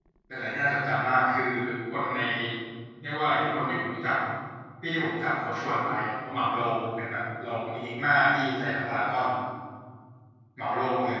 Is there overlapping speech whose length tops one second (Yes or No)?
No